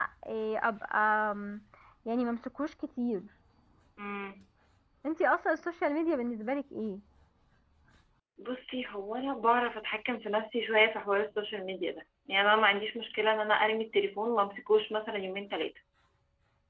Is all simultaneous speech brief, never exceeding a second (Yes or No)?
Yes